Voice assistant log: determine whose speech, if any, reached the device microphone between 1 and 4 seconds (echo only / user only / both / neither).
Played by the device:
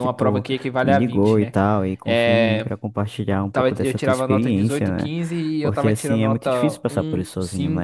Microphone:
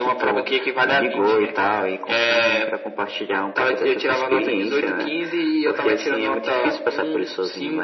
echo only